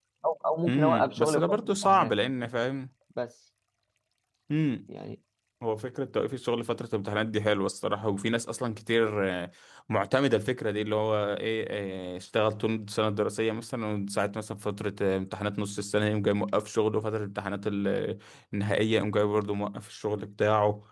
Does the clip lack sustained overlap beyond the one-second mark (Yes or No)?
No